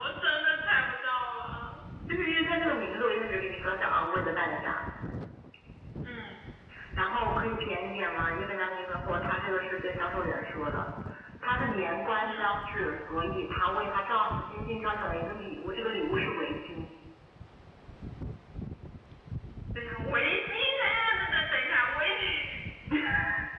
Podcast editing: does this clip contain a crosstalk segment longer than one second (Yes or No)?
No